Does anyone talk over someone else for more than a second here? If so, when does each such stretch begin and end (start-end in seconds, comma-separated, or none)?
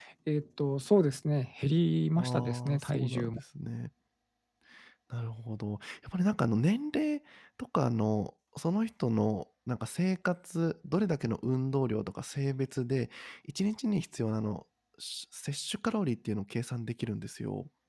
2.1-3.4